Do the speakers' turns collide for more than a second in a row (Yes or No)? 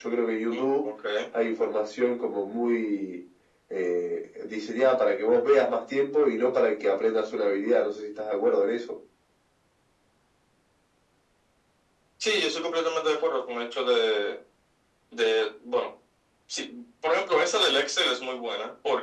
No